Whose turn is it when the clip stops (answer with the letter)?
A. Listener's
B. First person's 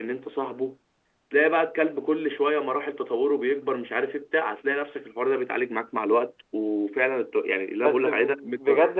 A